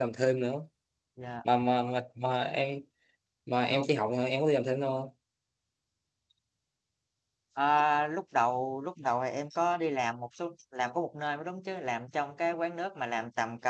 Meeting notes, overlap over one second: none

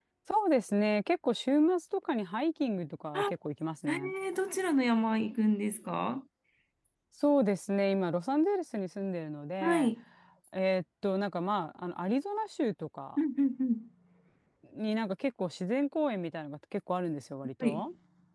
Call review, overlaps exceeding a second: none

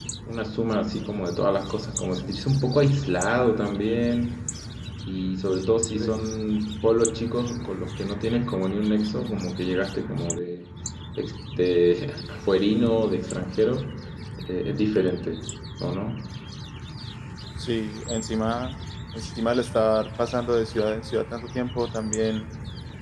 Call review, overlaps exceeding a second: none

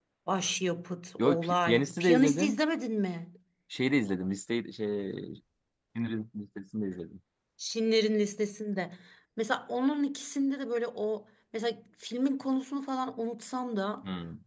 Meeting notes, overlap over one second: present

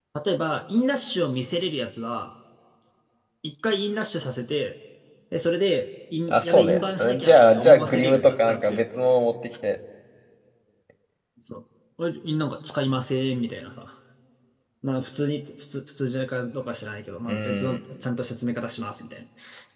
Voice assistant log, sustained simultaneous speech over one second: present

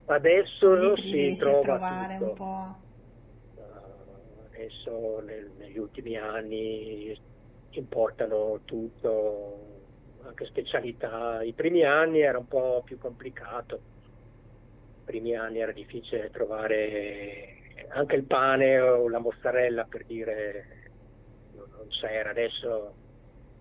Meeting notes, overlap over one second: present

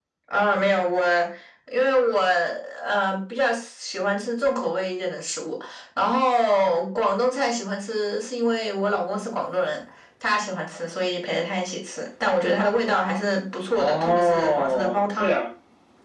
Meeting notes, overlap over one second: present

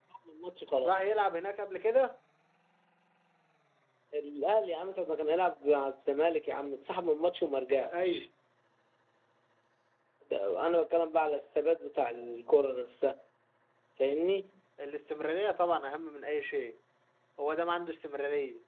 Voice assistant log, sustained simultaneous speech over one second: none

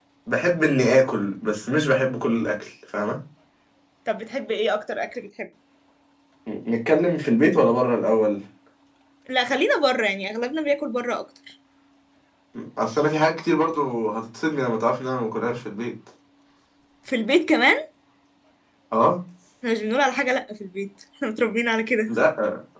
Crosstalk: none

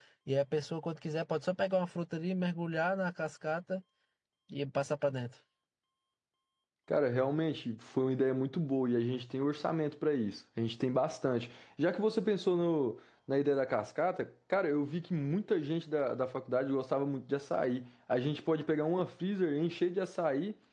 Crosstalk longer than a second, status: none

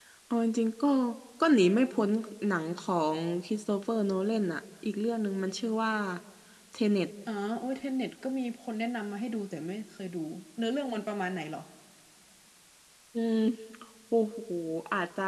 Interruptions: none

